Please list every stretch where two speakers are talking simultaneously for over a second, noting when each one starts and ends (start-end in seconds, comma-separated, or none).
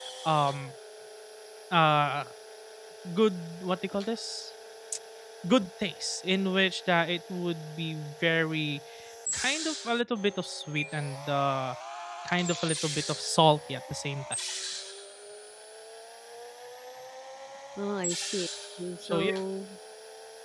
none